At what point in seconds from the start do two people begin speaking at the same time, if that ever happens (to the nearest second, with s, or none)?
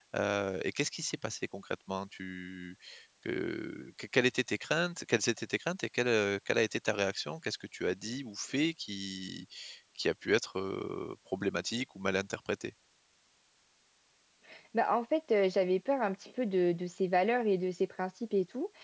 none